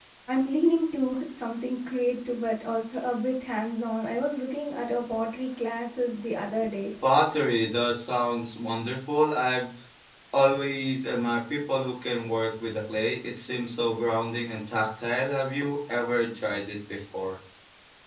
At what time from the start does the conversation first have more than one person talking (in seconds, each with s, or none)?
none